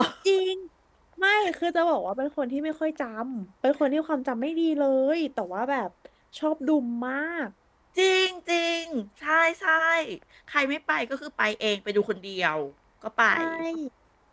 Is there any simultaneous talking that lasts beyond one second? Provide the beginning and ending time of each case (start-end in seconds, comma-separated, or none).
none